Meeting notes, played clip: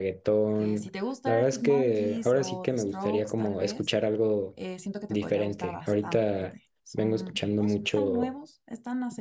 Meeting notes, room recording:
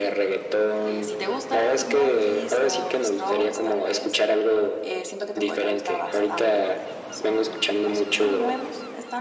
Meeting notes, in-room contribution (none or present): none